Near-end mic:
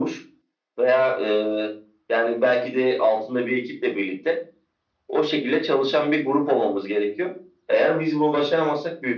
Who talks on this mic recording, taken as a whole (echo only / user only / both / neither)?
echo only